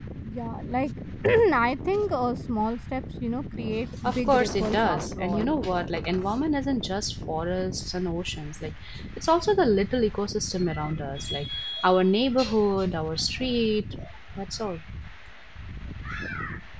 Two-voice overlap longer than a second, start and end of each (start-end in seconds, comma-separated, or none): 4.0-5.5